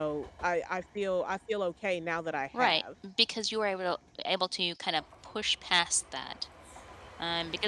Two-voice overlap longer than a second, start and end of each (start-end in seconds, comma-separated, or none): none